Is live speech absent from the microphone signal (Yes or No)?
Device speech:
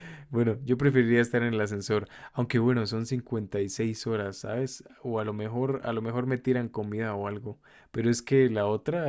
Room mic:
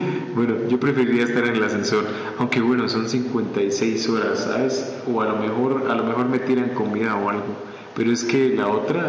Yes